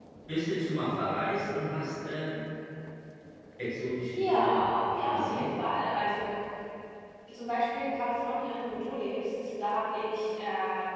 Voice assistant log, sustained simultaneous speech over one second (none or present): none